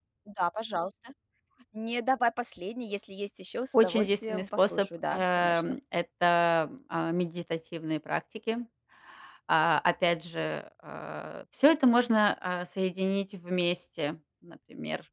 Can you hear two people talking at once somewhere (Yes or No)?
Yes